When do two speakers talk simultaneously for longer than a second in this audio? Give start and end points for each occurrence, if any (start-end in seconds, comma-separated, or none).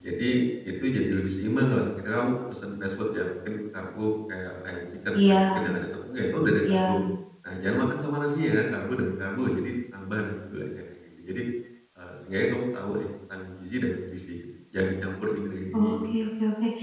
none